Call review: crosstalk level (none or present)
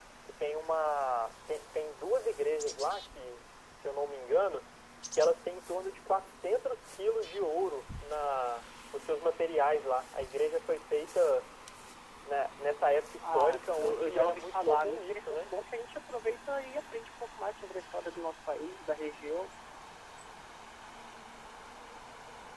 present